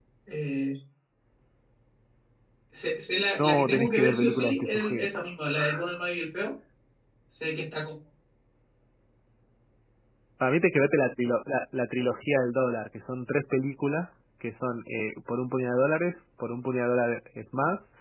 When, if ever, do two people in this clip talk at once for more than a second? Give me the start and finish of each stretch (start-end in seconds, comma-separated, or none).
3.4-5.1